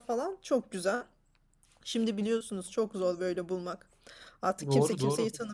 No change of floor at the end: Yes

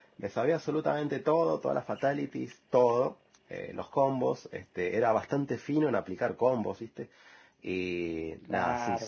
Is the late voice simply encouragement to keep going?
Yes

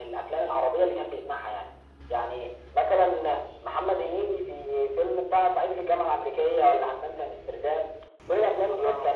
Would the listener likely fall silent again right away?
Yes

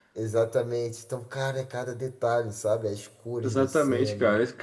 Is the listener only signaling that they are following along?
No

